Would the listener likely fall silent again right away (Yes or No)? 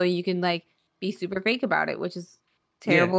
No